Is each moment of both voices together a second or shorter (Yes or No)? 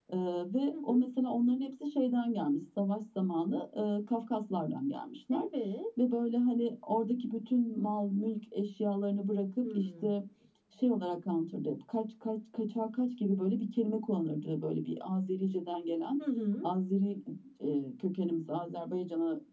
Yes